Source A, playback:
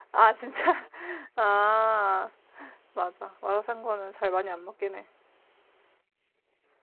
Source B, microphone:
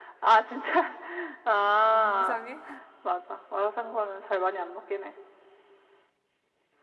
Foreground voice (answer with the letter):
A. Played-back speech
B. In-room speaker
A